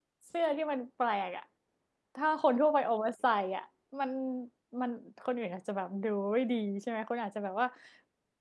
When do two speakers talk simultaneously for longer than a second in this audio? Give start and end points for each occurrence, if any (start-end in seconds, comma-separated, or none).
none